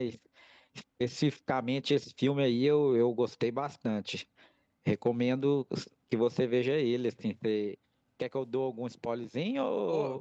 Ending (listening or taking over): taking over